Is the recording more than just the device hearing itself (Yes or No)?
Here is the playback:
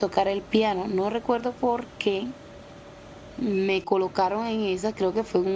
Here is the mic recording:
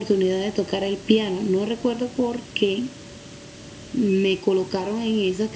No